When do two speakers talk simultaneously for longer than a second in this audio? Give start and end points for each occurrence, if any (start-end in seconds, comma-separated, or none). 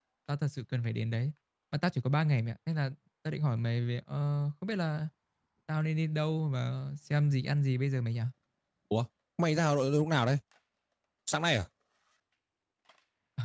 none